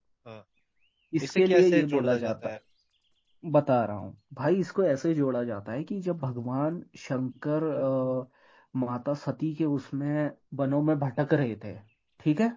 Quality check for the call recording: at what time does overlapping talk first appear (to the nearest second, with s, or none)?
1 s